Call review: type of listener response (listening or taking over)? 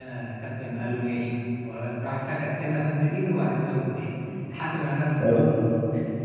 listening